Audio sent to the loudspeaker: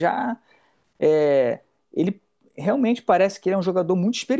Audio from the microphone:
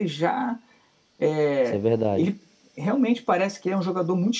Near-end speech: present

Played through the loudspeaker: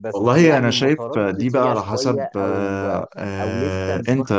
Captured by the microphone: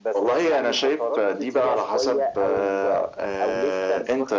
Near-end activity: none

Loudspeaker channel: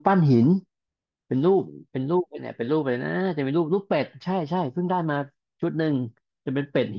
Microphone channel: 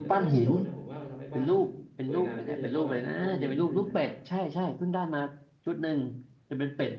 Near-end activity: present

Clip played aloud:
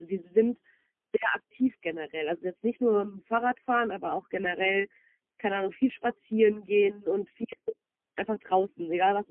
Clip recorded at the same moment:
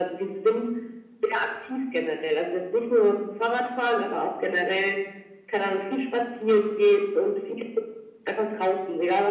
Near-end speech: none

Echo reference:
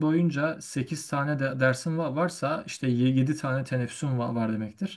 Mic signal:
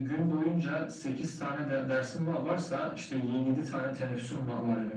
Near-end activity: none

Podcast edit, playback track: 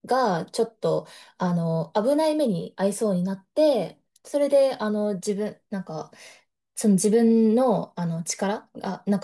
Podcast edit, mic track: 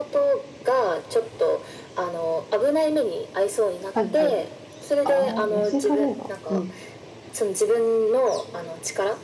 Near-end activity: present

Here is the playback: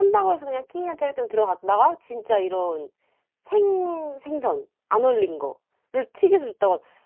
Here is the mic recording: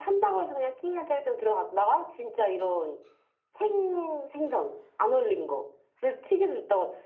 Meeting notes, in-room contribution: none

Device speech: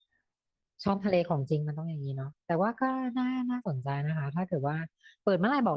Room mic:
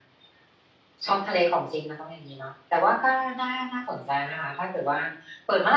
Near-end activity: none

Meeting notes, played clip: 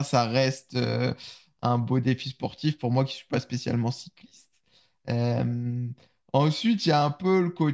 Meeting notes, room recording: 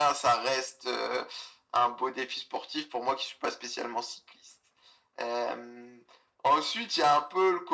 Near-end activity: none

